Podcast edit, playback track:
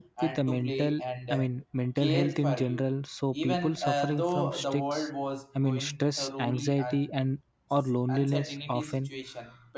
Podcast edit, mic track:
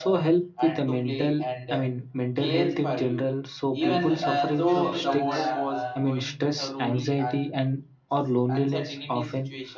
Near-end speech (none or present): present